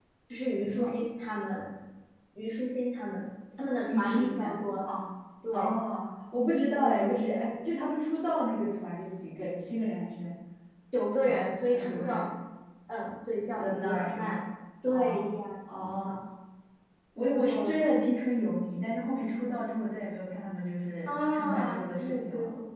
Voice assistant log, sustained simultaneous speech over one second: present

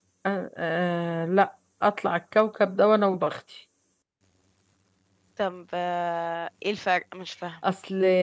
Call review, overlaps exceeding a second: none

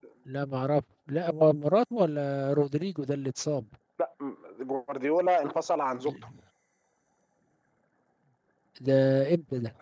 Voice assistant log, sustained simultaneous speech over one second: none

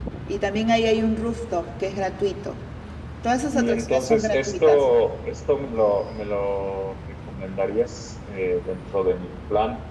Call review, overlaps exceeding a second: present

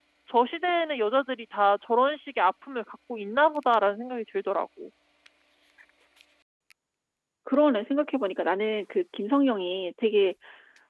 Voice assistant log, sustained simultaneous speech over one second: none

